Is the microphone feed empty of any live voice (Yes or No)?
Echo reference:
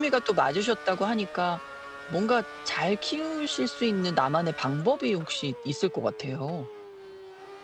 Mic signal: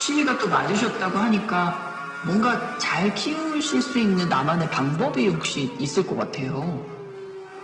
Yes